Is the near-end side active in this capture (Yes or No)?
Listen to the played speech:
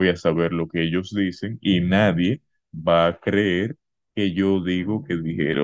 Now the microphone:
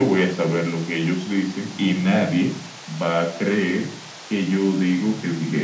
No